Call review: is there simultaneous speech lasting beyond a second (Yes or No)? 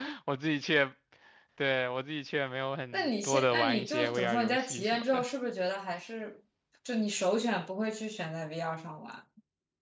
Yes